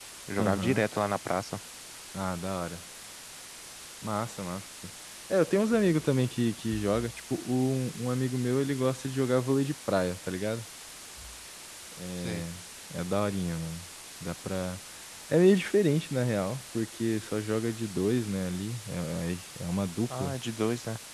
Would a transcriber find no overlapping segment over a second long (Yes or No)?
Yes